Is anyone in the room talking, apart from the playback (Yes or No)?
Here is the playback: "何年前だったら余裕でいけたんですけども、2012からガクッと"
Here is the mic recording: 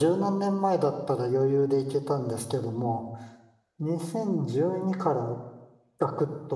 No